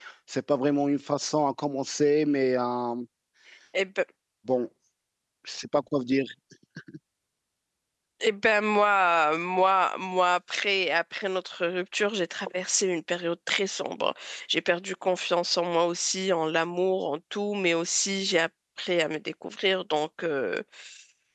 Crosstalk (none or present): none